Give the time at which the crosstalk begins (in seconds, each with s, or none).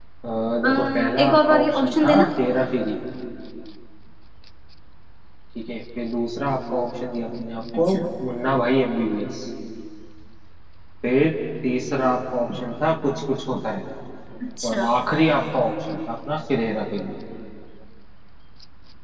0.7 s